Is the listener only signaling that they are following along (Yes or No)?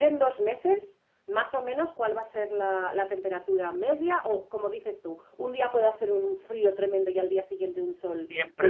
No